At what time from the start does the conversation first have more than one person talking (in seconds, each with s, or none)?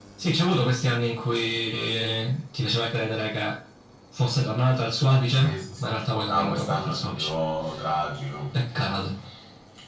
5.3 s